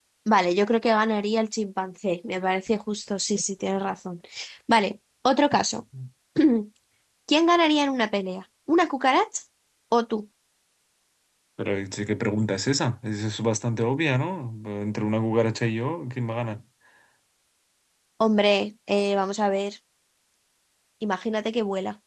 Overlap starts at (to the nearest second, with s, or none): none